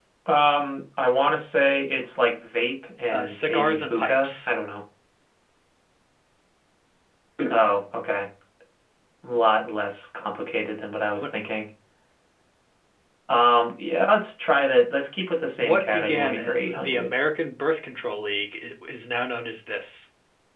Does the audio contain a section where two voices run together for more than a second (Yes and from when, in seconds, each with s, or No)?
Yes, from 3.1 s